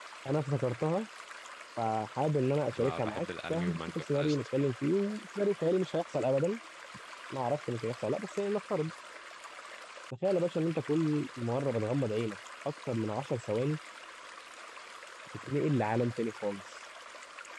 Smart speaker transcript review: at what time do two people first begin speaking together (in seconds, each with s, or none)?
2.7 s